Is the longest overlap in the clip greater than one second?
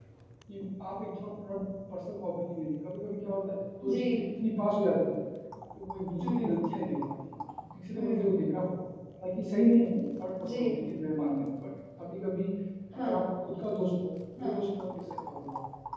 No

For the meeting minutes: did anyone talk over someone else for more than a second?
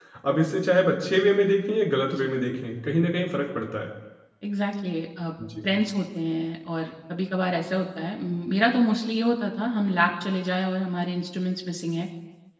No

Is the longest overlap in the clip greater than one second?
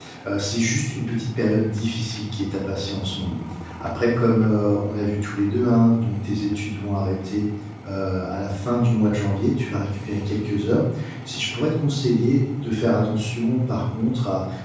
No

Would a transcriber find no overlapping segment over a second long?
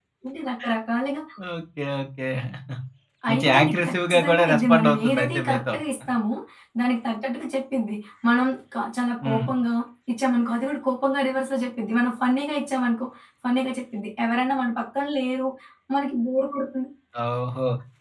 No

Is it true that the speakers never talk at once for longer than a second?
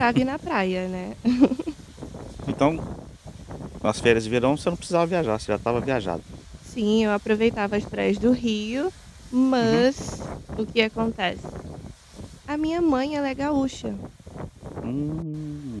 Yes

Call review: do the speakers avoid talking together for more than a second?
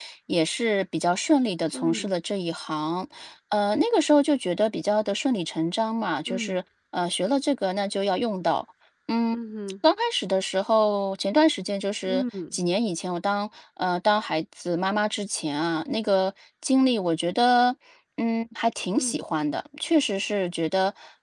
Yes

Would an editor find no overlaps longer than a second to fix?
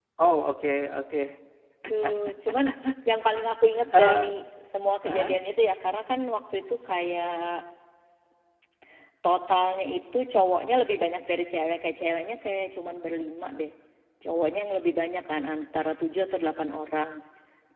Yes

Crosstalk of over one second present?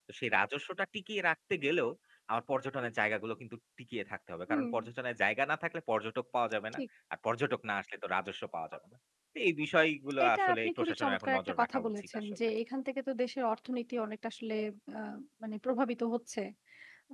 Yes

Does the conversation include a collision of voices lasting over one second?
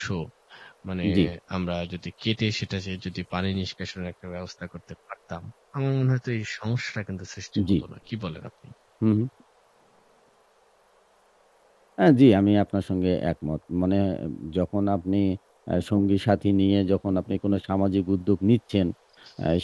No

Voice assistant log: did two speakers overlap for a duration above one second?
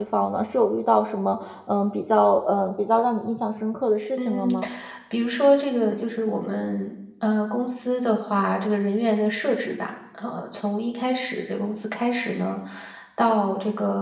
No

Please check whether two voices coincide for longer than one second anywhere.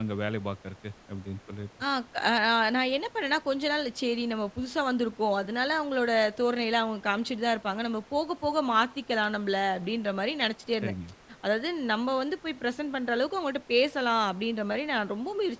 No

